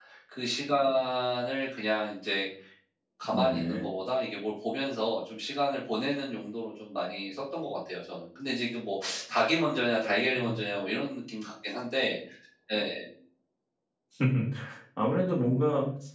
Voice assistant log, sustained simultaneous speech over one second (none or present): none